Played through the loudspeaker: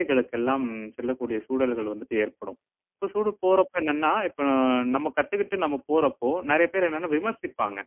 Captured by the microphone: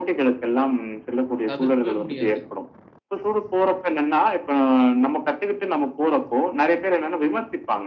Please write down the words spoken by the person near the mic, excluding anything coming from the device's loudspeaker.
தவிர்க்கவே முடியாது.

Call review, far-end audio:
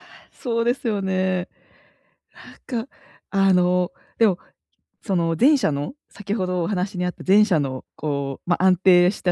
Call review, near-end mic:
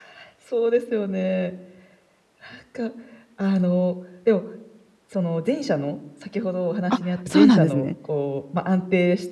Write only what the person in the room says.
あ、そうなんですね。

